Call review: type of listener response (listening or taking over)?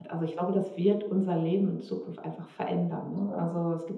listening